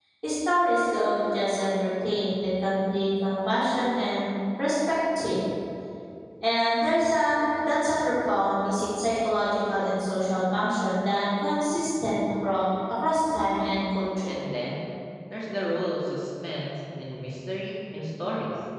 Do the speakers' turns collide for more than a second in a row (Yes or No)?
No